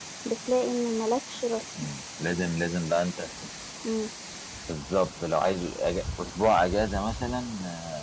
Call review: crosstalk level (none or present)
none